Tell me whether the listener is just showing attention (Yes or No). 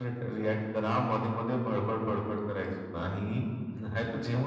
Yes